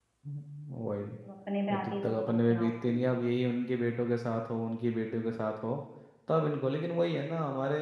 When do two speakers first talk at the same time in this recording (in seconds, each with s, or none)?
1.7 s